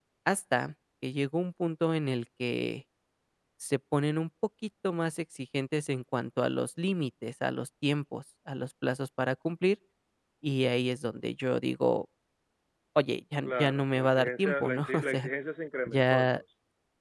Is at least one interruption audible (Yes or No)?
Yes